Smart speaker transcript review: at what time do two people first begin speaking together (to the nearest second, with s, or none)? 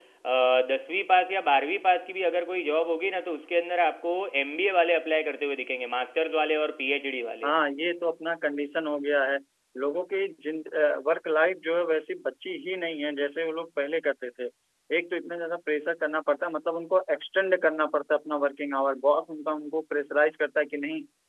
none